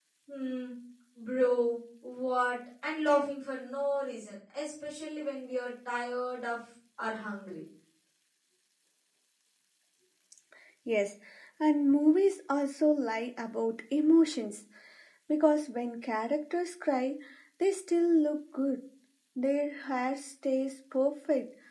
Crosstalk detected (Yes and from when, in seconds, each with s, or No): No